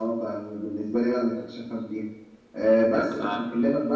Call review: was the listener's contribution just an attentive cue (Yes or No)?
Yes